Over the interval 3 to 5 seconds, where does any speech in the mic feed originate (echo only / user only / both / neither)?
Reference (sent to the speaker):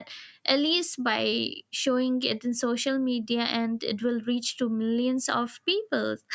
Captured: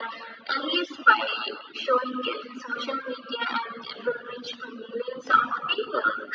echo only